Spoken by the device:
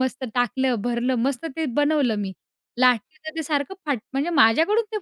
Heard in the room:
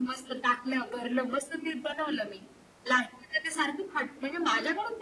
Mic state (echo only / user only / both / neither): echo only